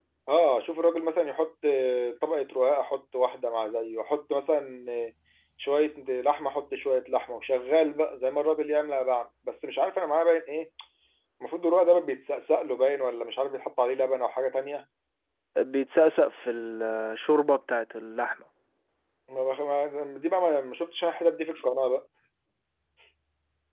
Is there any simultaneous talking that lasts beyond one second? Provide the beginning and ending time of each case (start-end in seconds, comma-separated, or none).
none